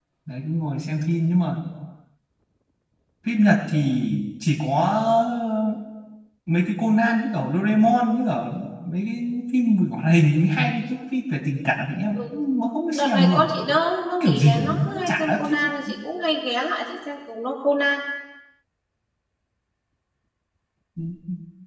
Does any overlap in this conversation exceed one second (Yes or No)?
Yes